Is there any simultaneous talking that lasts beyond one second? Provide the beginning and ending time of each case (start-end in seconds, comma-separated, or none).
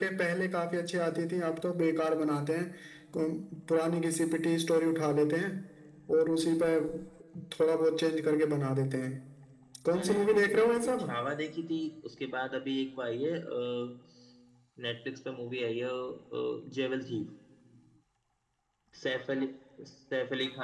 9.9-11.1